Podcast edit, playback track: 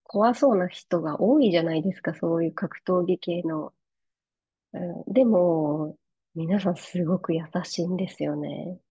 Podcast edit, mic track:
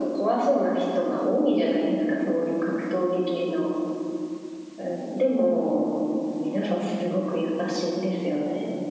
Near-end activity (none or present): none